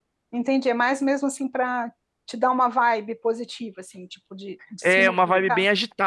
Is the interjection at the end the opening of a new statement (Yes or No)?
Yes